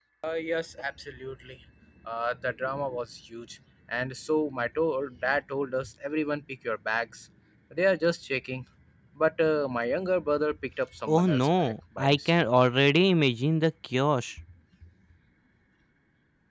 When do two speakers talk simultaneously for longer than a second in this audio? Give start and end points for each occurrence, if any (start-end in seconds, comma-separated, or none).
11.1-12.3